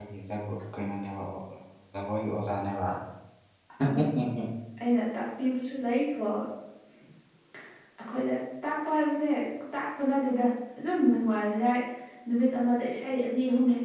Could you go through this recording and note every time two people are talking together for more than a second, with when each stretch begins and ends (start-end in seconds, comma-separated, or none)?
none